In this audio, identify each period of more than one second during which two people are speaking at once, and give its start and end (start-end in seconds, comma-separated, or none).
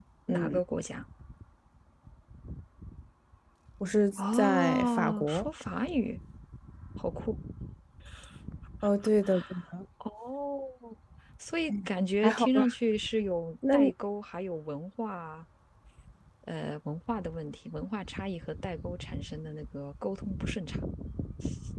4.2-5.5